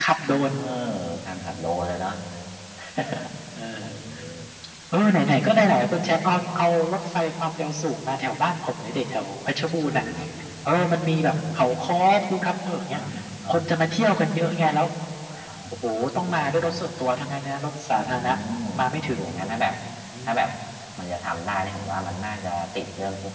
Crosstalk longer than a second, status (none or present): none